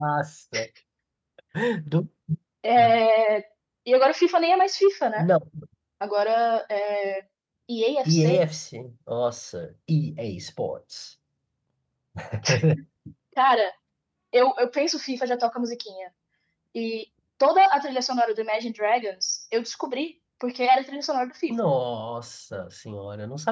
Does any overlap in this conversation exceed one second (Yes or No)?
No